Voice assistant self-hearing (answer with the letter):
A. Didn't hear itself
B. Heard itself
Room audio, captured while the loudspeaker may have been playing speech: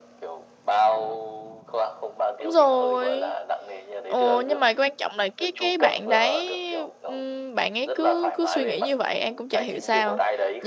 B